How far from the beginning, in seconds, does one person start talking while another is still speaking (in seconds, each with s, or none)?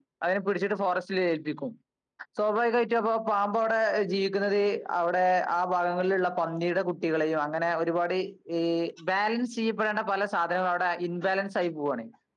none